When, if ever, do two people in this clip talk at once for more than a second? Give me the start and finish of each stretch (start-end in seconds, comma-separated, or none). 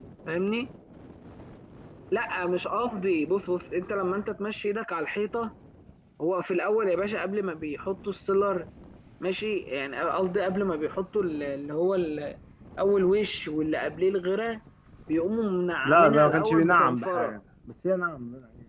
15.8-17.4